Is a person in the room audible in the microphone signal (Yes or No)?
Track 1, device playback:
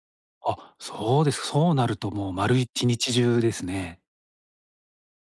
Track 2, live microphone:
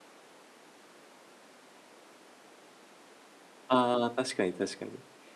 Yes